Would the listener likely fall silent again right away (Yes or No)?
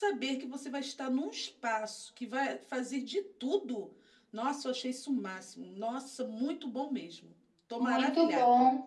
No